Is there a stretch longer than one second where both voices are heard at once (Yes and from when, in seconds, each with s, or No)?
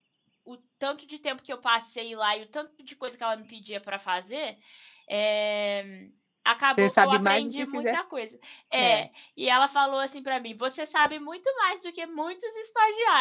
Yes, from 6.8 s